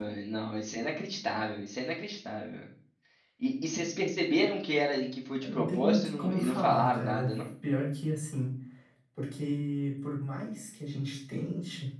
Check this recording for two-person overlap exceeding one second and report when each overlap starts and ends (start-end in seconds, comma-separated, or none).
5.4-7.4